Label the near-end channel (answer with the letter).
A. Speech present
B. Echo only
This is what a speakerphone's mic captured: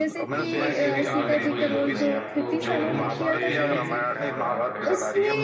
A